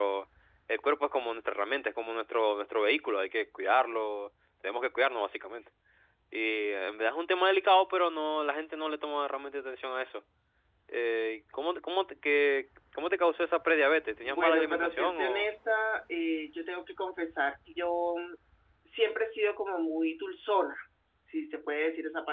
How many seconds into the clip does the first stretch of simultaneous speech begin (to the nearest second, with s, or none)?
14 s